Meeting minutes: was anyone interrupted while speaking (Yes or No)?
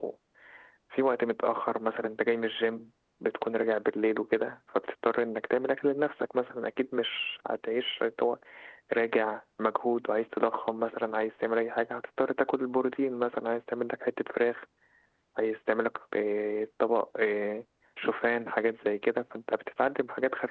No